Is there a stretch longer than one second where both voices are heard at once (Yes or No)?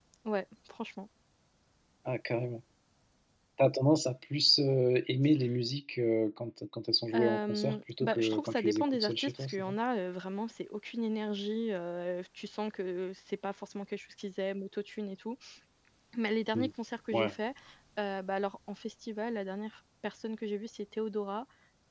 Yes